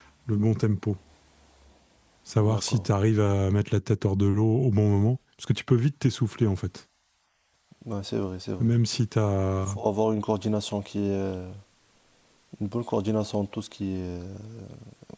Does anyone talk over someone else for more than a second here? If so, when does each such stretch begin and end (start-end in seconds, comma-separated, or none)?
none